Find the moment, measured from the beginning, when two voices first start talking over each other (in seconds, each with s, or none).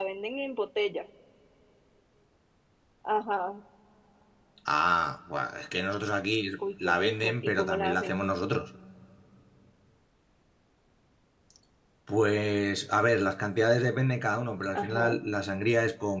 6.8 s